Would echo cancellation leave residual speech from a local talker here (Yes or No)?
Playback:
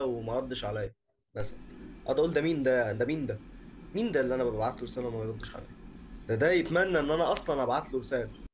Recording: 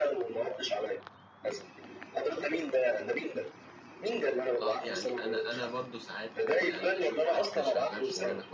Yes